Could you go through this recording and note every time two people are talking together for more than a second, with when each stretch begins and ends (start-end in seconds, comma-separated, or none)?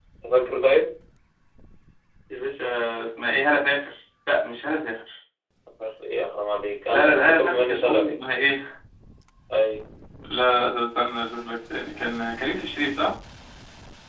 6.9-8.2